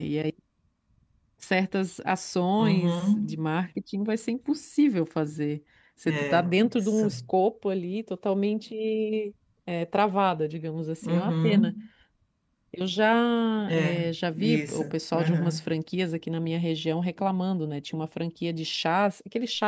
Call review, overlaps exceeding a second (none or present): present